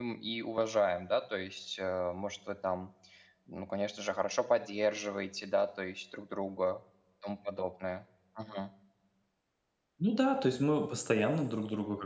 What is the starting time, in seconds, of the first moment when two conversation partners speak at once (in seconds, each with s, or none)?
none